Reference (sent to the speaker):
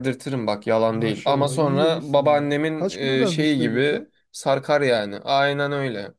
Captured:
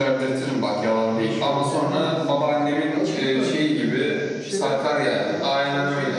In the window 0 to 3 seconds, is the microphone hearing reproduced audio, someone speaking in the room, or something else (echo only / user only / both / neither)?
both